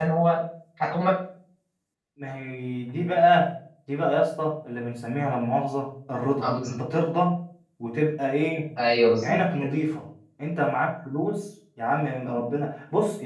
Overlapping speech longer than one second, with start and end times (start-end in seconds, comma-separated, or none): none